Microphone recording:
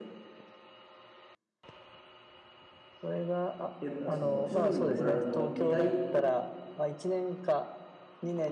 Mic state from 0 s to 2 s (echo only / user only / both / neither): neither